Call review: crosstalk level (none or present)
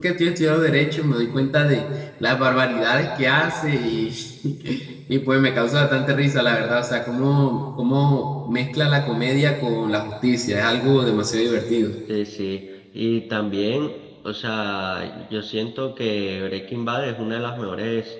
none